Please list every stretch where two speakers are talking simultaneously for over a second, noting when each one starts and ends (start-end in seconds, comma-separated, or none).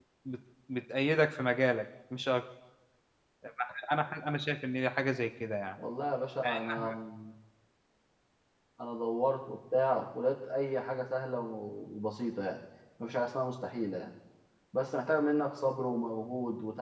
none